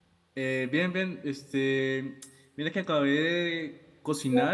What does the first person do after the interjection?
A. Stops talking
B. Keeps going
B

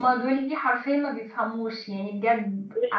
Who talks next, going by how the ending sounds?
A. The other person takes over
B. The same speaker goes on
A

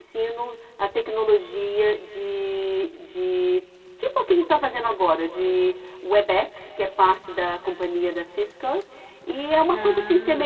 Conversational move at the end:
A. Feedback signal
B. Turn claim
A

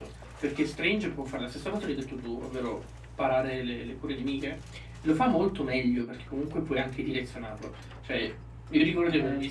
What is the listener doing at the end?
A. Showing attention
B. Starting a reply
A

